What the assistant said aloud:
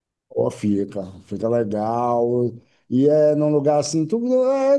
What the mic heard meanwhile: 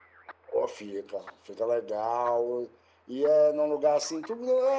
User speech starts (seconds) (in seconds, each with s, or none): none